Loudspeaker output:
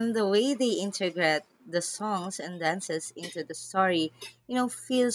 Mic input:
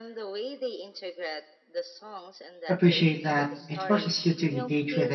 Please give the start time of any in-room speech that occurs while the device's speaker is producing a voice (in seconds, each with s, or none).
2.7 s